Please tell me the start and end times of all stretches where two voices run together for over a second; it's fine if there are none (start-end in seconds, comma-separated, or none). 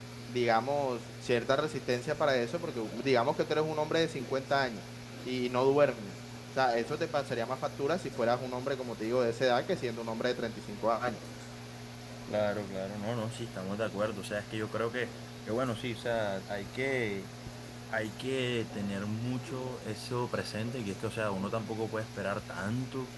none